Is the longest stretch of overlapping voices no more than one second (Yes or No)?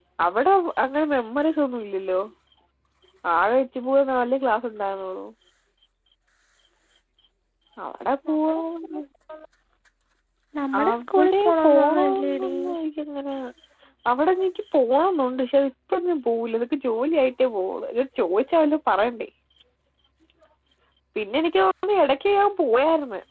No